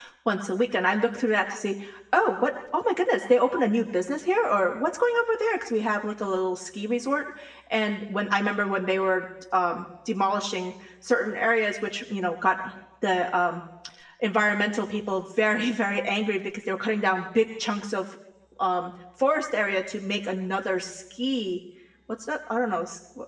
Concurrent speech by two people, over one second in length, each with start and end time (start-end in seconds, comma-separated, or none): none